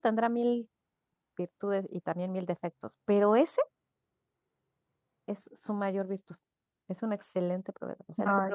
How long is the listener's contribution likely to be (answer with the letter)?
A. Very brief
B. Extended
A